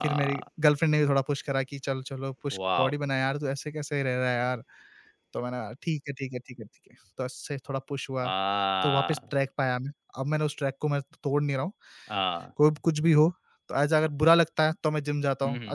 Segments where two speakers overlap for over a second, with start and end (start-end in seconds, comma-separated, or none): none